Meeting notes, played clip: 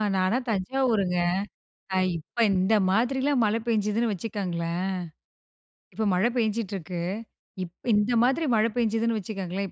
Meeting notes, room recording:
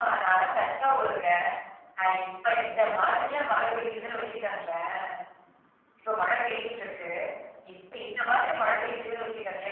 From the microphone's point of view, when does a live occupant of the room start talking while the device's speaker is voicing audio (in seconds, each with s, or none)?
none